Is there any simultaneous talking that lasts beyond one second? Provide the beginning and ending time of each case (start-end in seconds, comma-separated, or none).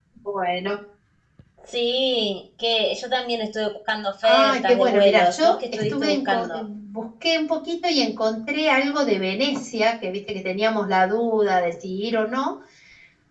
4.2-6.6